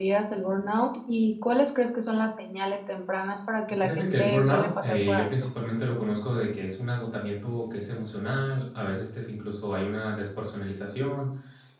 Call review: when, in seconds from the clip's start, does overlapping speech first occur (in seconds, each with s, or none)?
3.8 s